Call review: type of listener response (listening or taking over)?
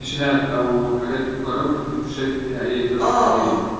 taking over